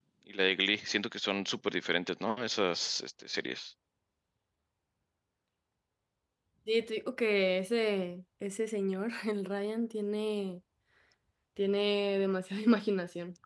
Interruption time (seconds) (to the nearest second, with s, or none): none